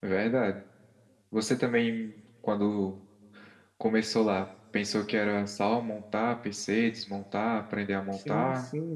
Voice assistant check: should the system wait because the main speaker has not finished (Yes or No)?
No